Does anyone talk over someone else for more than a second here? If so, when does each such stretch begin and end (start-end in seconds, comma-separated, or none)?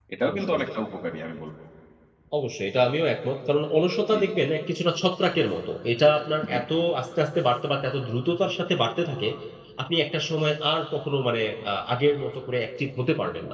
none